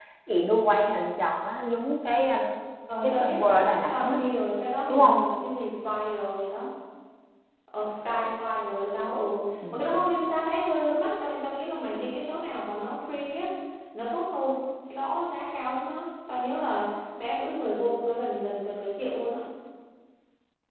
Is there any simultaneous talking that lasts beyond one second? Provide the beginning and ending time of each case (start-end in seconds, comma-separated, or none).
none